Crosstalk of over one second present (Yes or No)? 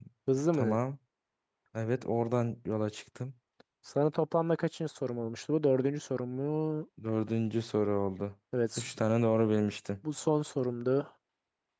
No